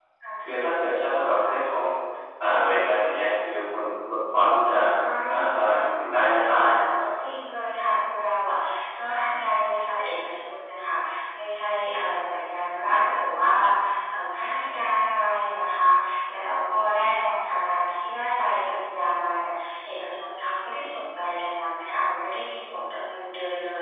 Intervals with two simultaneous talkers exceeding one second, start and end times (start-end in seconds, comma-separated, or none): 5.3-6.6